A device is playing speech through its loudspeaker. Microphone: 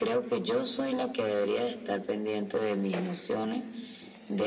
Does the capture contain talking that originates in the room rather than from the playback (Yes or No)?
No